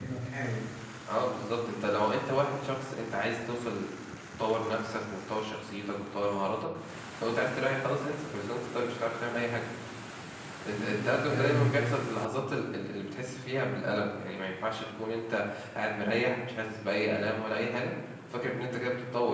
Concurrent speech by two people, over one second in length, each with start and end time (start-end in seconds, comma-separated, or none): 10.7-12.1